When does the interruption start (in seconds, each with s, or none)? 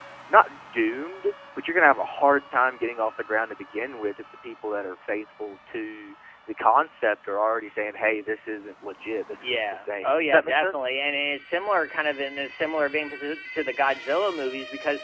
9.4 s